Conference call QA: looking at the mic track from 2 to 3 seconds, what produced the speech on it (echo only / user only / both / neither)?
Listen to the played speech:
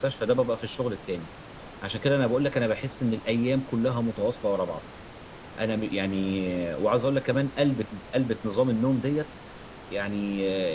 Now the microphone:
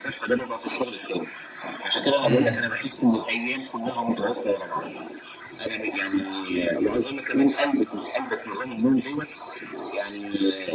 both